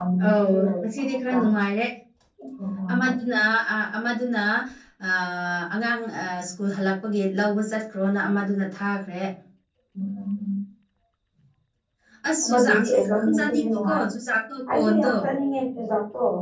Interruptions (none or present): present